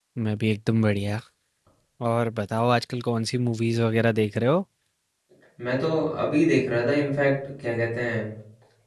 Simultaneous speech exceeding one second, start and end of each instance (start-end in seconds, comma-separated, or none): none